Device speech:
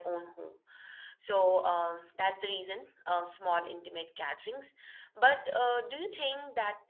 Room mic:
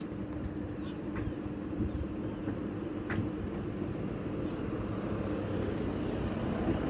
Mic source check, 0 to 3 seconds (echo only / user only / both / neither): neither